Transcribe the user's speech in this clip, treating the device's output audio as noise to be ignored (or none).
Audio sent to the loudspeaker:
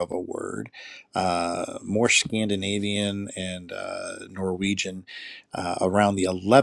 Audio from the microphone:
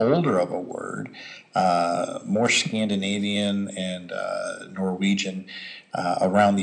none